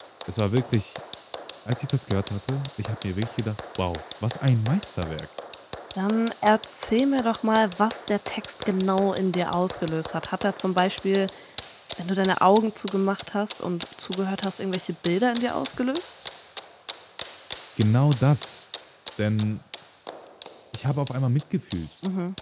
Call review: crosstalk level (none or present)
none